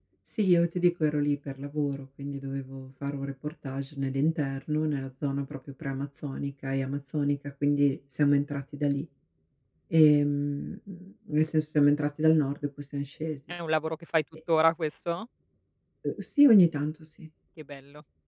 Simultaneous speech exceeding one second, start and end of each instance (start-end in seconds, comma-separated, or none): none